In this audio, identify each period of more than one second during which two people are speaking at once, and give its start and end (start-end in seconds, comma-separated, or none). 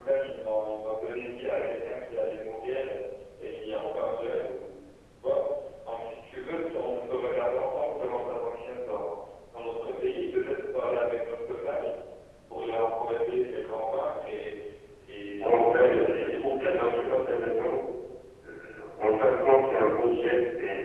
15.4-17.1